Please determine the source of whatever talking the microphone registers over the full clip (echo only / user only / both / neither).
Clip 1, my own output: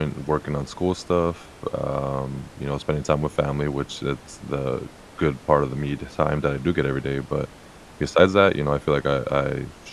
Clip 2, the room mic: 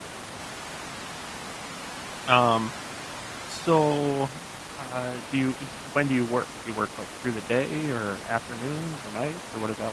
user only